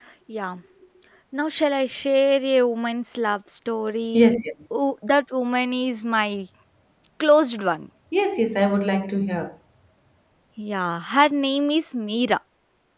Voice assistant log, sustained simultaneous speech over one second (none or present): none